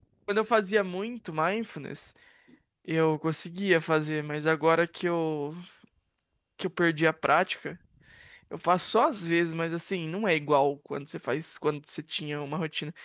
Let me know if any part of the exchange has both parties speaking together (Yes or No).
No